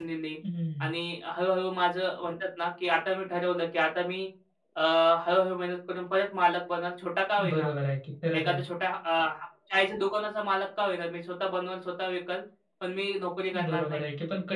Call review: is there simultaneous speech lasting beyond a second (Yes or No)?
No